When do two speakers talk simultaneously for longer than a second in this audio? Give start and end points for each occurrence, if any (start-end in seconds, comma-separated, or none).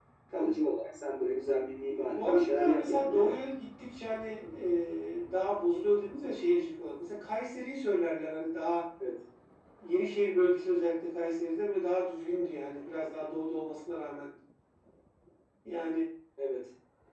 2.2-3.4